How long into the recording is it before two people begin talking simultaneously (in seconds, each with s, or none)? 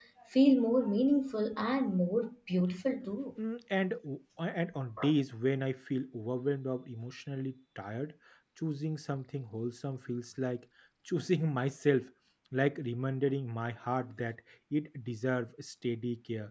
none